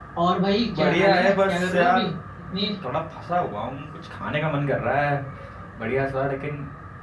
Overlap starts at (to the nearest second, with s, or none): 1 s